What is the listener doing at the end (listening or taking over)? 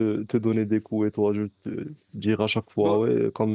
listening